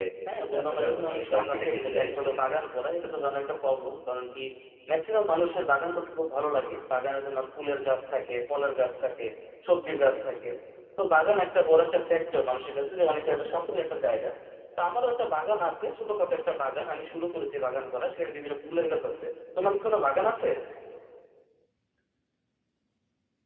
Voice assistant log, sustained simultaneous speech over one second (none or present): present